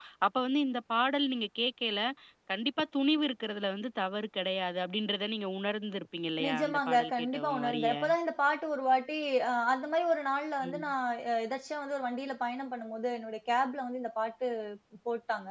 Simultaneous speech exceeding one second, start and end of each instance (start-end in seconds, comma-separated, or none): 6.4-7.9